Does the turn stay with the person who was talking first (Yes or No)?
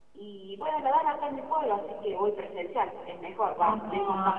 No